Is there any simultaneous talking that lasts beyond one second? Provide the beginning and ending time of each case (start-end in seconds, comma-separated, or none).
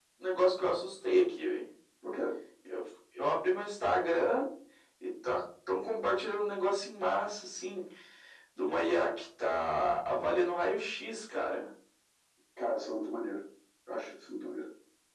none